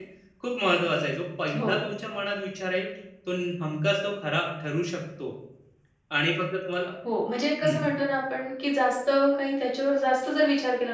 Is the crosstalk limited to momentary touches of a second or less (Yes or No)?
Yes